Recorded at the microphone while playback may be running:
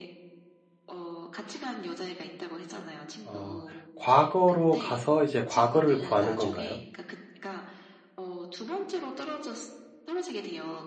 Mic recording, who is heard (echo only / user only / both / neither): both